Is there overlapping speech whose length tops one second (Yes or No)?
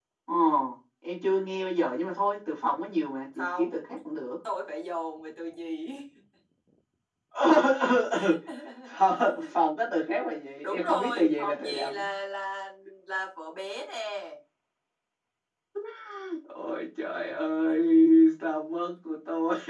Yes